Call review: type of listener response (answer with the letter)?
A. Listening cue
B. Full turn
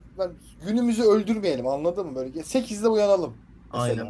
B